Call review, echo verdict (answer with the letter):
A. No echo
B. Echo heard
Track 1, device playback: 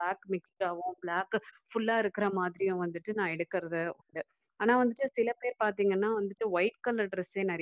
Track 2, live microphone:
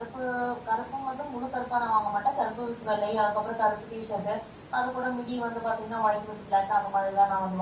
A